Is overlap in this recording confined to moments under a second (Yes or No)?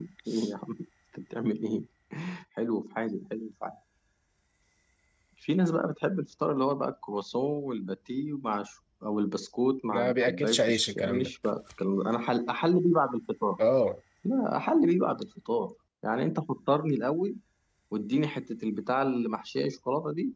No